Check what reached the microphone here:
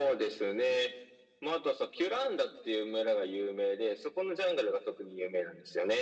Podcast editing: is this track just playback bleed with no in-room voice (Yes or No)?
Yes